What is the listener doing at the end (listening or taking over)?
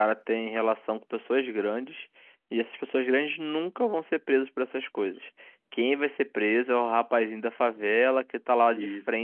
listening